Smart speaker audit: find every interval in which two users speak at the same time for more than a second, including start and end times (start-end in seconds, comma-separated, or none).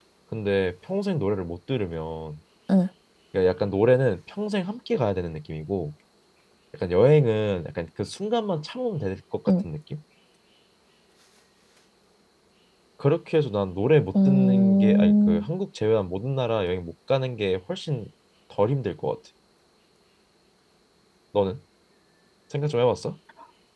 14.1-15.5